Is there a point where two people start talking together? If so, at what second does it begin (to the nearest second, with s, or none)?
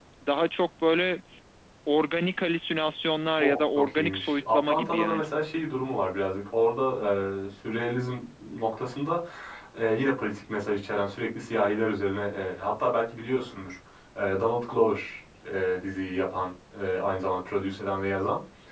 3 s